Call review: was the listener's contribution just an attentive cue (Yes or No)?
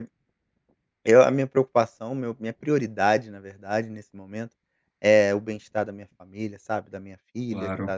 Yes